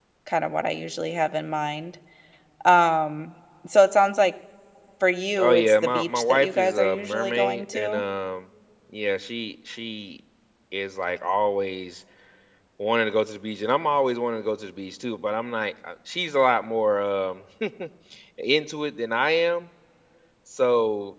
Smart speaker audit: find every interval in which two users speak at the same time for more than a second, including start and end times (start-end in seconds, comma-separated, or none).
5.4-8.0